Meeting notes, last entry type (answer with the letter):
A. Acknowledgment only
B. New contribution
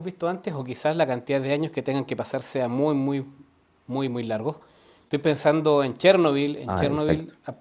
A